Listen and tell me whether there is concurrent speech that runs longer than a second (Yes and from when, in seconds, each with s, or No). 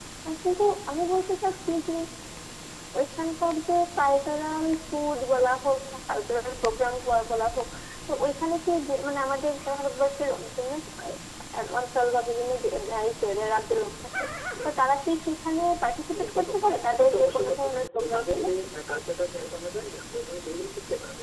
Yes, from 16.1 s